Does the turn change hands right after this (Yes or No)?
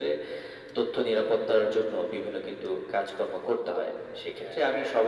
No